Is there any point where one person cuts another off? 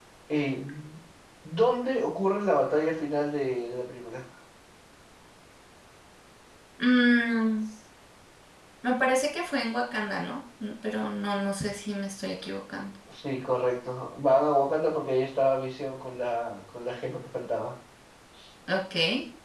No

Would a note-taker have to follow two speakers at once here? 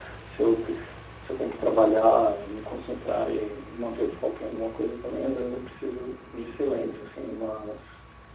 No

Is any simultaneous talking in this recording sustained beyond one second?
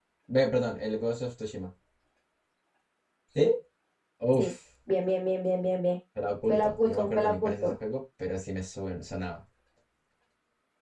Yes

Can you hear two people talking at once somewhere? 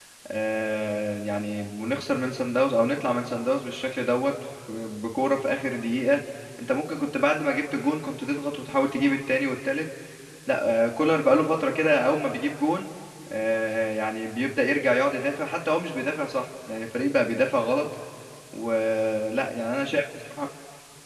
No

